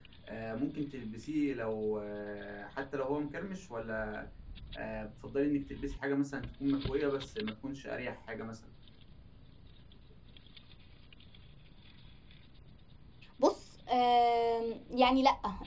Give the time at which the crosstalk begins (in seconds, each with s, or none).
none